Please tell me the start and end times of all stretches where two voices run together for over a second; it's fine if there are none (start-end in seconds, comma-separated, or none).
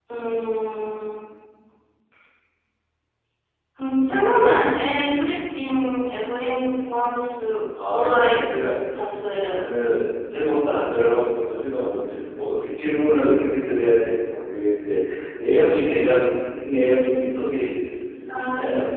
none